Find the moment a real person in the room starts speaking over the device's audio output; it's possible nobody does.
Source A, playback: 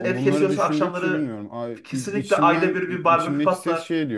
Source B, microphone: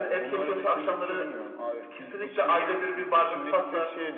none

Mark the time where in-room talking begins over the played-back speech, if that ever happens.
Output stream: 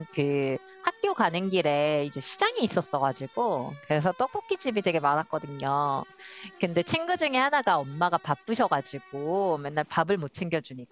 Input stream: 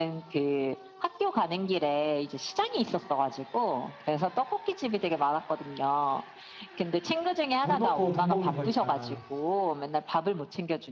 7.6 s

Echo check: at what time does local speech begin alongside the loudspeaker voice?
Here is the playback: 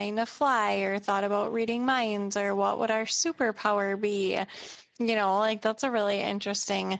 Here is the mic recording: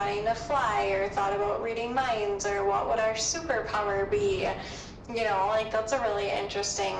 none

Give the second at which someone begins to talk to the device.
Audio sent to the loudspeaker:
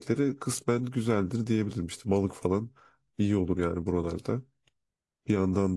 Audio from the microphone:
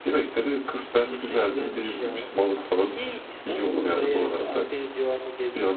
0.9 s

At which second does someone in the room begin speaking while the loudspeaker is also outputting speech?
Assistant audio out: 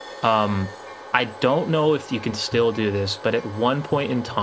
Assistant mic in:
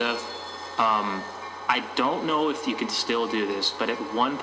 none

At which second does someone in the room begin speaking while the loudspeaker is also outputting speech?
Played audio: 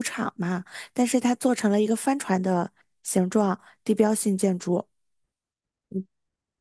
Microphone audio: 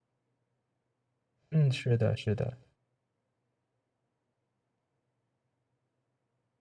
1.5 s

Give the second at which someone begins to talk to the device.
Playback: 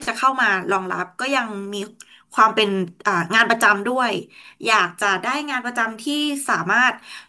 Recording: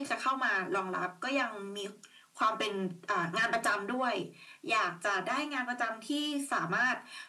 none

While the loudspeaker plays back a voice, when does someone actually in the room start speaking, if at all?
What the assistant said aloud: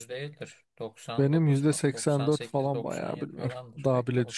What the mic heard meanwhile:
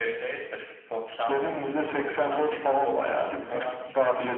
none

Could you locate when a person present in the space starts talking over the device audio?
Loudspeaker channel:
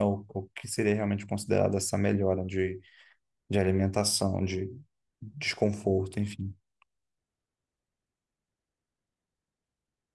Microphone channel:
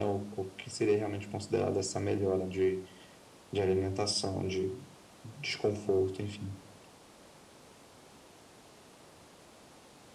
none

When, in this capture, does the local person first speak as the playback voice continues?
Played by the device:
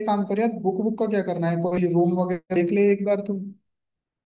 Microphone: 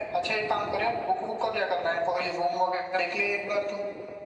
none

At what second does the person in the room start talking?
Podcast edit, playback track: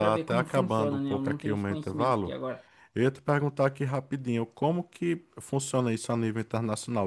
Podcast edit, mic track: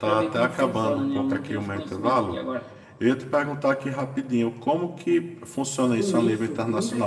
5.9 s

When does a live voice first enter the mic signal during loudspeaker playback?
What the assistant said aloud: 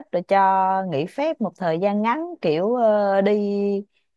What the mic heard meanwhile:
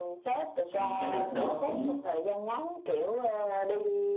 0.6 s

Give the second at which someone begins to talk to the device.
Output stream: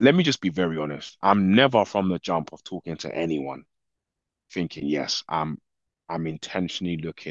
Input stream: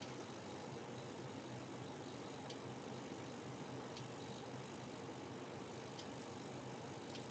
none

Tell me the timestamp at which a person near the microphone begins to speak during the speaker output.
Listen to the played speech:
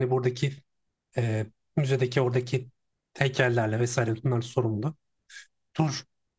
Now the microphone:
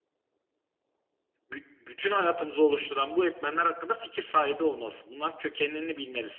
1.5 s

